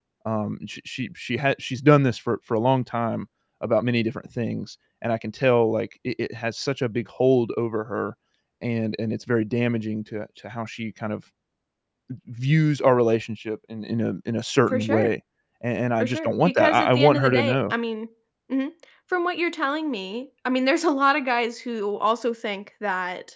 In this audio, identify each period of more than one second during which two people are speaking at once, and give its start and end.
16.0-17.7

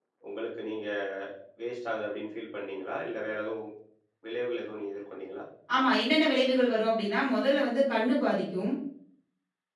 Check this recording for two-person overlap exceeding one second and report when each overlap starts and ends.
none

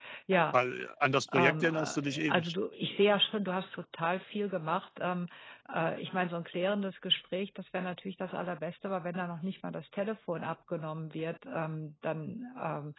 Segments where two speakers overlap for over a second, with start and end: 1.3-2.5

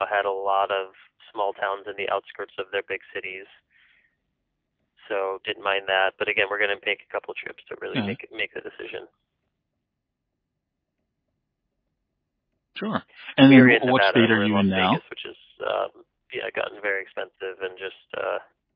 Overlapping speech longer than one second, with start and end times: 13.5-15.0

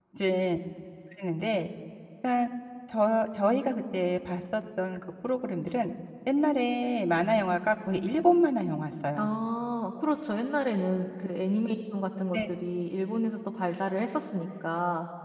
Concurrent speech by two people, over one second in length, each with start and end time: none

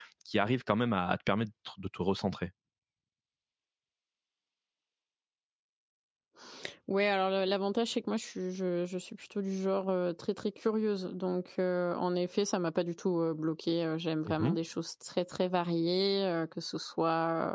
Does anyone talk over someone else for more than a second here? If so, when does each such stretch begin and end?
none

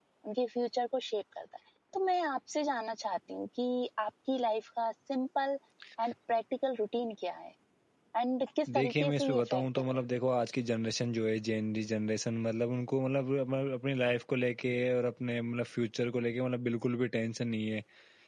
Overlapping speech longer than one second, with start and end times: 8.8-10.0

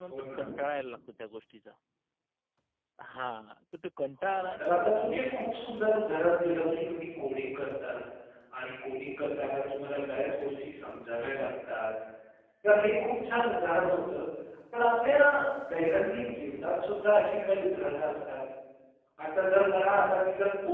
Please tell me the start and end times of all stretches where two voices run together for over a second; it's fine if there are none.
4.2-6.2

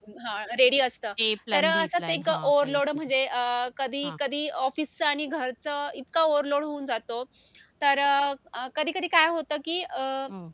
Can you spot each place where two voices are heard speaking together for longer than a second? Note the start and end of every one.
1.5-2.8

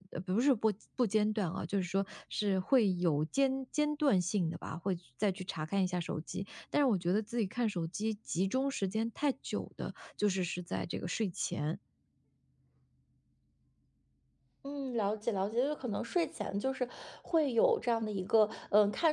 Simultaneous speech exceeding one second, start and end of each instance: none

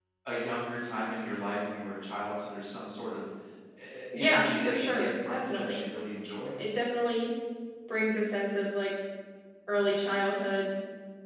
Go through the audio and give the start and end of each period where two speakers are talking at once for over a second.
4.2-5.8

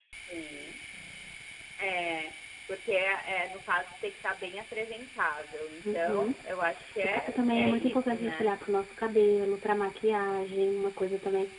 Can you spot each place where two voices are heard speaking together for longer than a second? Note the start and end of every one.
7.0-8.5

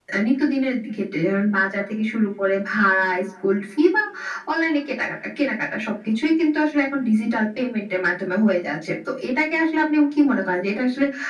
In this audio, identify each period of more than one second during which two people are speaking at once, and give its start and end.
none

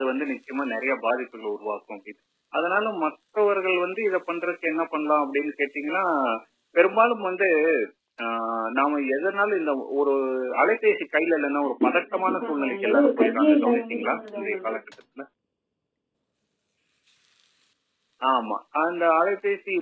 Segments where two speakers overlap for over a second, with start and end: 11.8-14.7

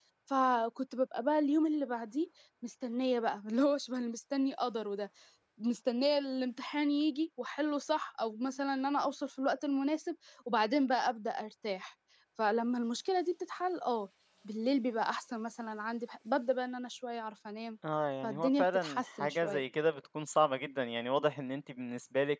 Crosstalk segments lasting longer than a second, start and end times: 18.2-19.6

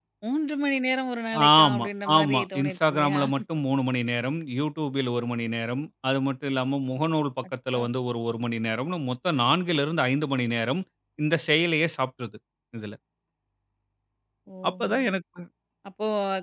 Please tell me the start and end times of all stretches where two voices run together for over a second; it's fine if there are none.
1.6-3.2

